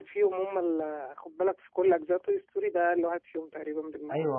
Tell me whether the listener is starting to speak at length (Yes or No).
Yes